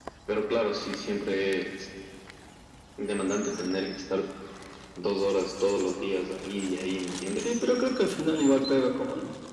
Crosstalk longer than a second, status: none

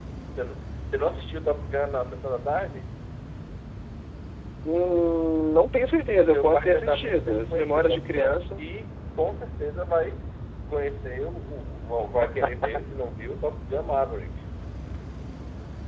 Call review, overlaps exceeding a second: present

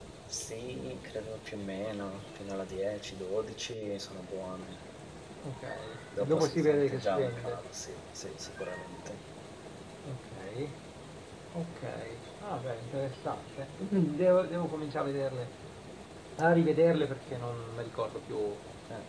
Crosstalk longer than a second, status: present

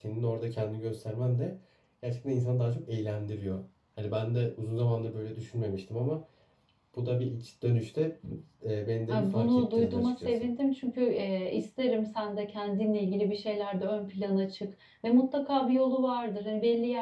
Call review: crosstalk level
present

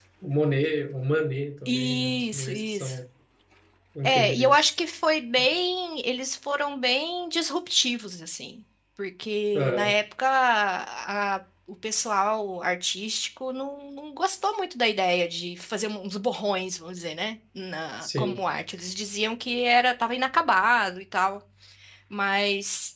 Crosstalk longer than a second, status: present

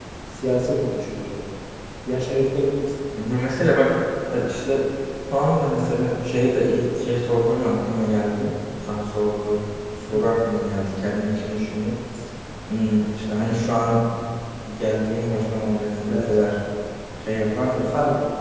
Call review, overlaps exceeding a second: none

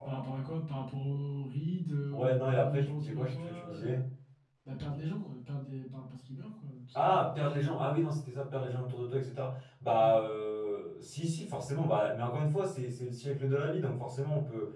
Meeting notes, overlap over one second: present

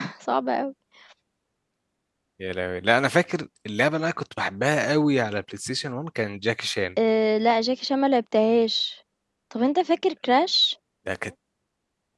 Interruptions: none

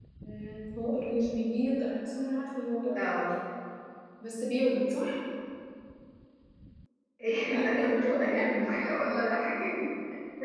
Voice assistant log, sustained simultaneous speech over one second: present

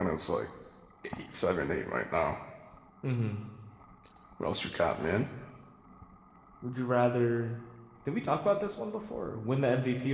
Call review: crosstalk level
none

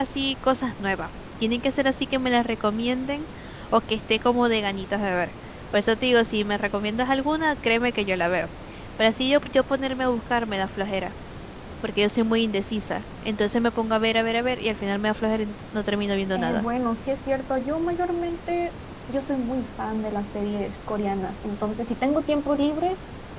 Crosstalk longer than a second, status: none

